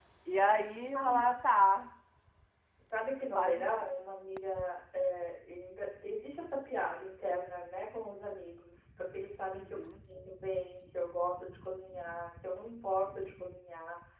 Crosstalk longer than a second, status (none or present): none